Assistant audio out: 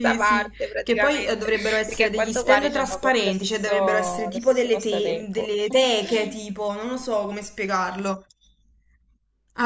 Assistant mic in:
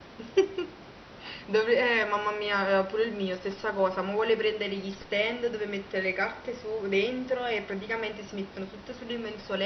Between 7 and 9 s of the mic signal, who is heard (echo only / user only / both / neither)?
user only